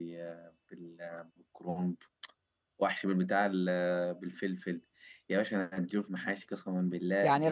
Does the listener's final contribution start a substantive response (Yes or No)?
Yes